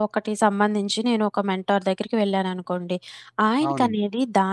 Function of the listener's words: listening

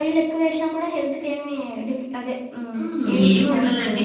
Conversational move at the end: taking over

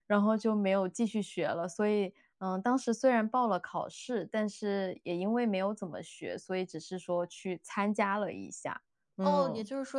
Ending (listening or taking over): taking over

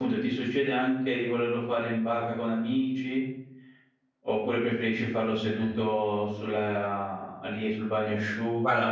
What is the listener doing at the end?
listening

